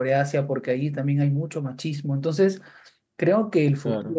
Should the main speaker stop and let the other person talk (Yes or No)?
No